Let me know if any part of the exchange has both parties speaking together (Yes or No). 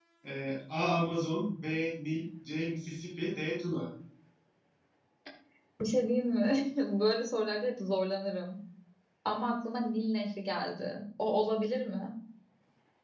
No